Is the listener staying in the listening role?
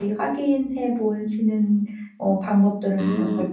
No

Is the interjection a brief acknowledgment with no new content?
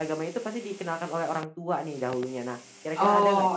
No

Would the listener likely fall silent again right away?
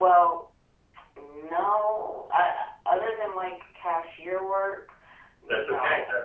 No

